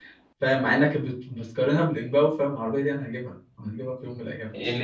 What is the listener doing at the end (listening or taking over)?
taking over